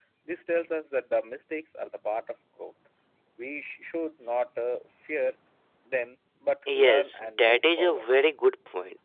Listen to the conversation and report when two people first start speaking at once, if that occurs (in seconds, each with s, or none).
6.7 s